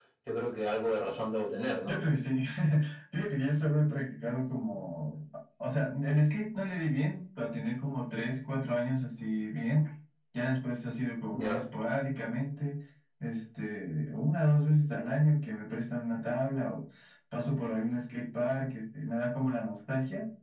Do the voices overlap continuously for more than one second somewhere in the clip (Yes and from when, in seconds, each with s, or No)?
No